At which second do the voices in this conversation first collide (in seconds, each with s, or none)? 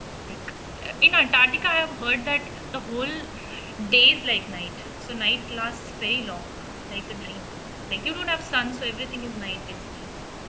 none